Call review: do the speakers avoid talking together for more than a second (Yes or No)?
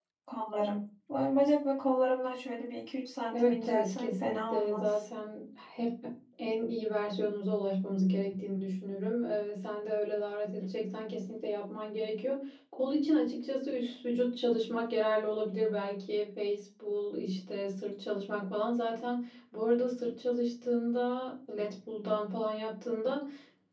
No